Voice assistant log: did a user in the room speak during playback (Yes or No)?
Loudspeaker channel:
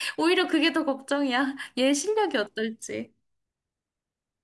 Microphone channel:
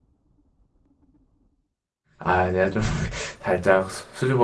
Yes